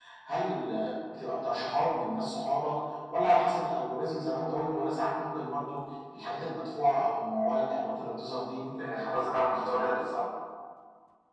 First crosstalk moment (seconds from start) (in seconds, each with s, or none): 8.8 s